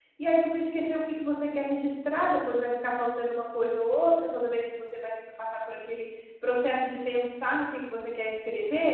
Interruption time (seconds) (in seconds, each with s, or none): none